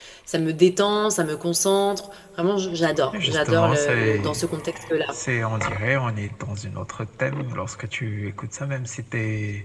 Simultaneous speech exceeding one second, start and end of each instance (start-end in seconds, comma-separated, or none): 3.2-4.4